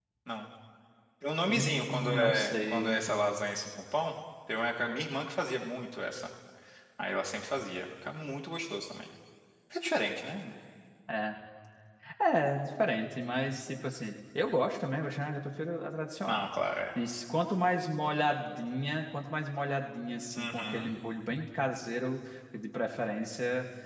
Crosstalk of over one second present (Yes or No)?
Yes